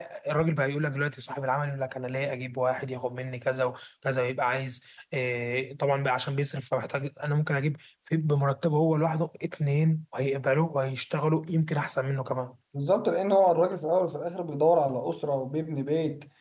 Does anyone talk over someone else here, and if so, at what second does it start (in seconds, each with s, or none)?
none